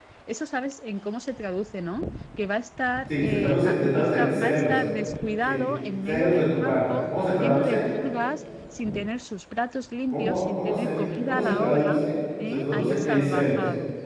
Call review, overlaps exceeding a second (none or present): present